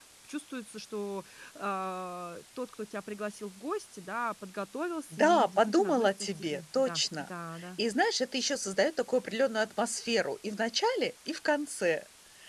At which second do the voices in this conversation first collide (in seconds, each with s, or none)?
5.1 s